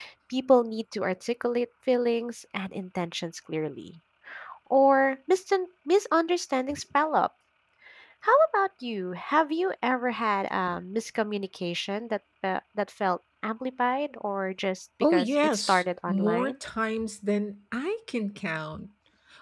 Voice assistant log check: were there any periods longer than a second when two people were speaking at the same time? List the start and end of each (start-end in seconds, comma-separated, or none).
15.1-16.5